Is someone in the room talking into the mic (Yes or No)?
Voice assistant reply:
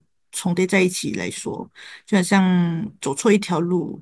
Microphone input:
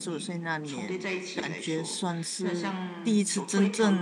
Yes